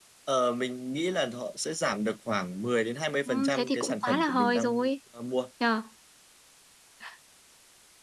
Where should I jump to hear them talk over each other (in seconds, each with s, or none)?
3.3 s